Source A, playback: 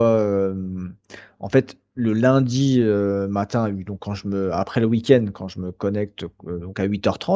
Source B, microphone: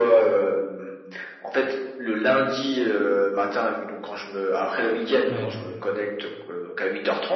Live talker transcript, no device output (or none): Ouais, je vois.